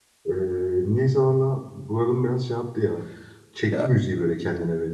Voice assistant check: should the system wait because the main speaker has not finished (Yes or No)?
No